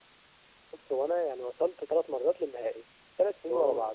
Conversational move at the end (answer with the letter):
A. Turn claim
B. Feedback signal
B